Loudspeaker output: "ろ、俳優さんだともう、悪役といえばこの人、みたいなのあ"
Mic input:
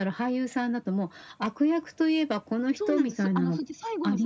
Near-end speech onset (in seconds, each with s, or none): 2.8 s